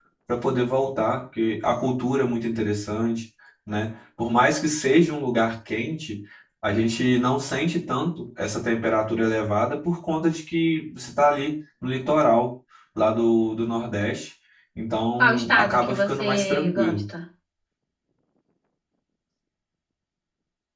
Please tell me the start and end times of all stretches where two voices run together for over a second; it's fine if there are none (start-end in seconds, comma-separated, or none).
15.2-17.0